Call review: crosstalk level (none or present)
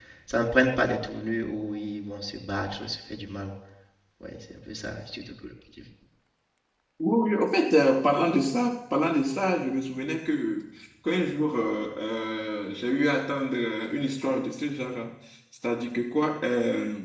none